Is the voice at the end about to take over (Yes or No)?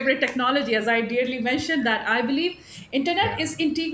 No